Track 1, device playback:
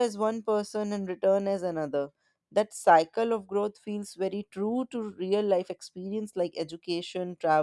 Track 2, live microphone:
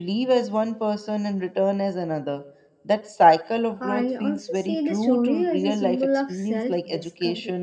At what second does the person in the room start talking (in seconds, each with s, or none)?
3.8 s